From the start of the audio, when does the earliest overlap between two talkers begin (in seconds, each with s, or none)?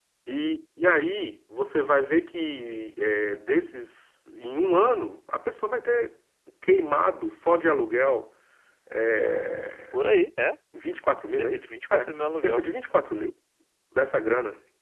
11.4 s